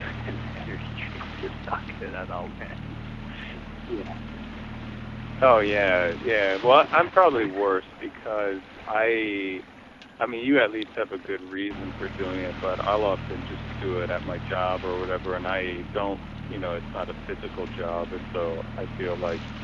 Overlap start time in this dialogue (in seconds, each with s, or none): none